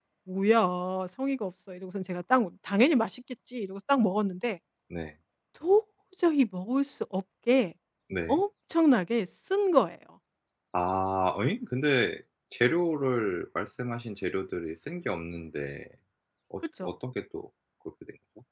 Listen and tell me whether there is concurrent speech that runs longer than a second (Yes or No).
No